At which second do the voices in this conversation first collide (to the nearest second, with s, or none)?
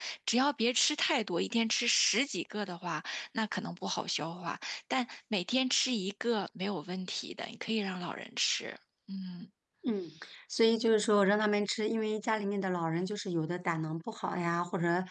none